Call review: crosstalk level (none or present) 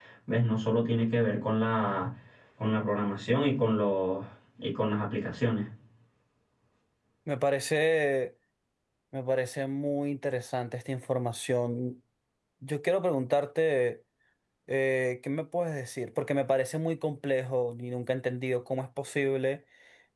none